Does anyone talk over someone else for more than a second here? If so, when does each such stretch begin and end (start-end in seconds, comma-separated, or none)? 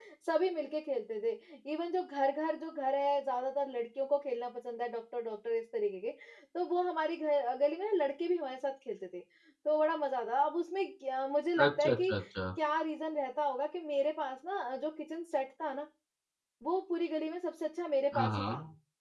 none